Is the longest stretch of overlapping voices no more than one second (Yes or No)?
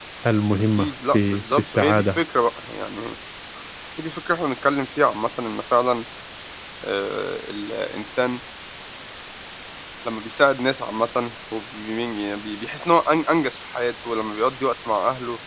No